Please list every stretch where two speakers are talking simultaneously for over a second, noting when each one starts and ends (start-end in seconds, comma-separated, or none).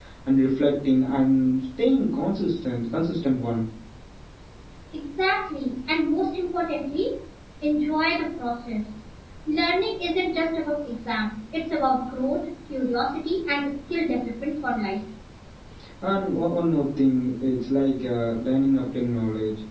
none